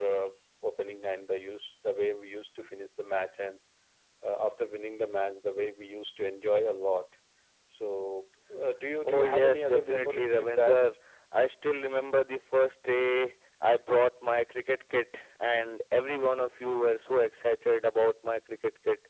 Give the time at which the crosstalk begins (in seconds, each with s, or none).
9.0 s